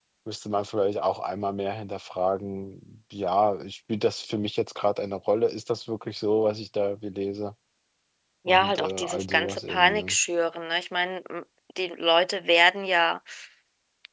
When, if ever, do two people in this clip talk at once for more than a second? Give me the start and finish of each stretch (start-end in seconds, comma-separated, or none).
8.5-10.2